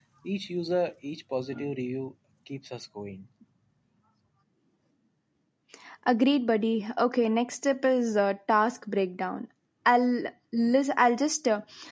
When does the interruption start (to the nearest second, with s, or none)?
none